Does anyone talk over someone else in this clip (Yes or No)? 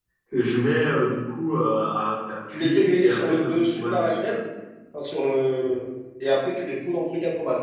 Yes